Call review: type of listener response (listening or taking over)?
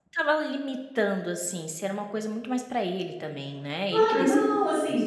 taking over